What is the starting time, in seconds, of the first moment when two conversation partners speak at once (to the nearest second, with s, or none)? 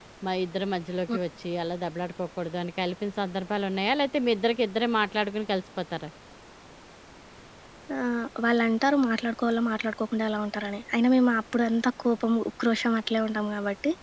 none